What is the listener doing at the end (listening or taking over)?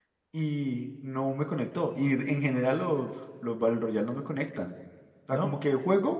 listening